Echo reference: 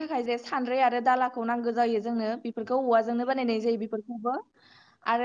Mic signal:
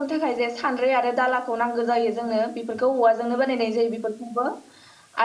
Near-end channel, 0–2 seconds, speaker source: echo only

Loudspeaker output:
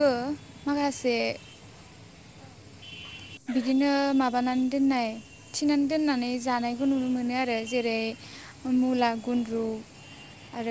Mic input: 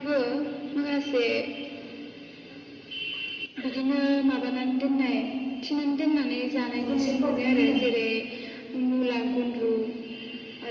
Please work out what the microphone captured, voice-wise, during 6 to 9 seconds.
both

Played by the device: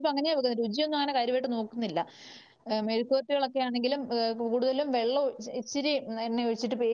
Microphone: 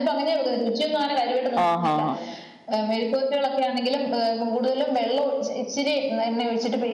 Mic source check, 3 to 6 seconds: echo only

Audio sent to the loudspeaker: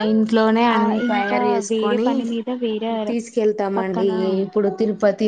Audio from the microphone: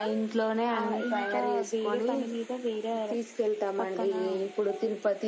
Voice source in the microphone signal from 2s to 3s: echo only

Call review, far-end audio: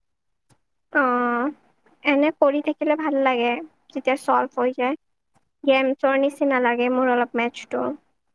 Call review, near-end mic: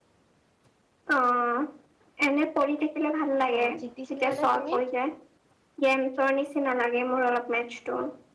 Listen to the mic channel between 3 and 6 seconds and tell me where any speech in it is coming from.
both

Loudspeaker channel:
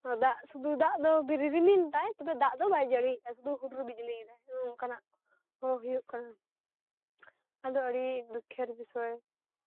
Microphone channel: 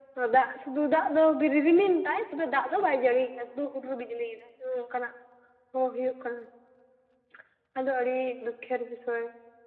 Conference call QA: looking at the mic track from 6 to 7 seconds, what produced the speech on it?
echo only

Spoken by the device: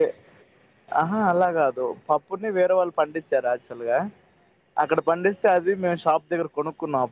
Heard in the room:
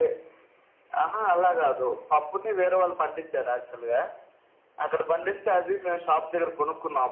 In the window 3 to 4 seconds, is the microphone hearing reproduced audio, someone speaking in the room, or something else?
echo only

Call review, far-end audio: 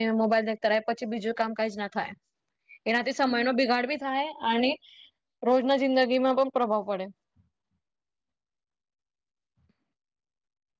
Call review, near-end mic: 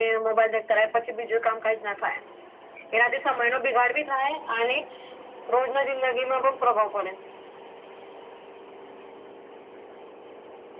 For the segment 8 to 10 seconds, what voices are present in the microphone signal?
neither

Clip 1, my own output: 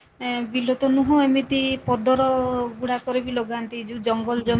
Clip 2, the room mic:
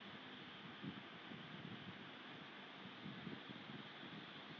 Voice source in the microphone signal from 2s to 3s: neither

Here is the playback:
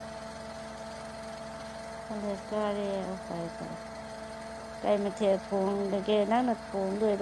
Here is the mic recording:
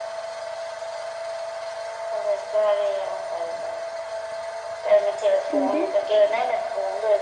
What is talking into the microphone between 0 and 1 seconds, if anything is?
neither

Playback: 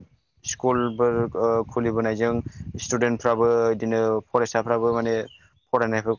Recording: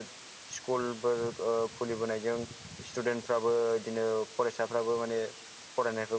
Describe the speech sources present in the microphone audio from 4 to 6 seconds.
echo only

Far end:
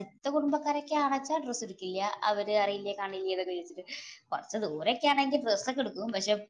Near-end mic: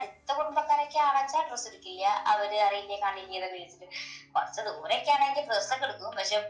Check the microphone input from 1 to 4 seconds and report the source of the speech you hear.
echo only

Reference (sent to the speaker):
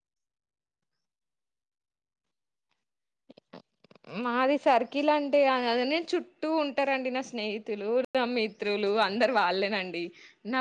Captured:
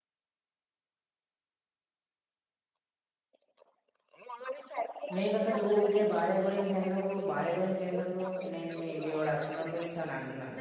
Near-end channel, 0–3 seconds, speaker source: neither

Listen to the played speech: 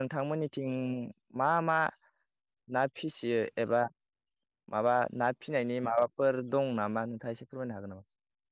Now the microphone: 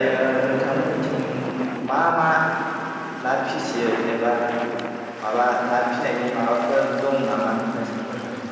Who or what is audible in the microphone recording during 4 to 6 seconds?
echo only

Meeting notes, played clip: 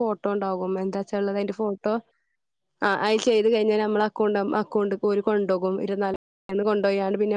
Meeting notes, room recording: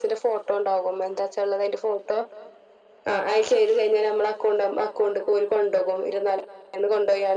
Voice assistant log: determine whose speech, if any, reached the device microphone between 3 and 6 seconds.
echo only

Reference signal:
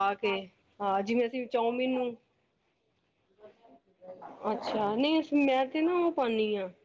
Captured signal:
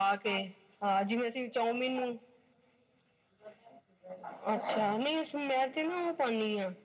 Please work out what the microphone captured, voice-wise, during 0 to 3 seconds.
echo only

